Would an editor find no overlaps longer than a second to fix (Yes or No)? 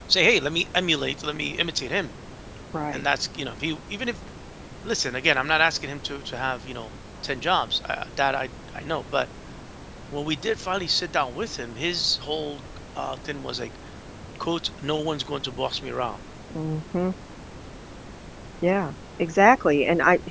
Yes